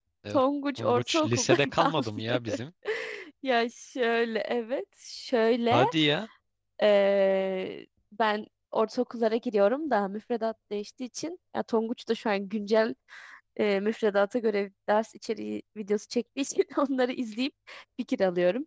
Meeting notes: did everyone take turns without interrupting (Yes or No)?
No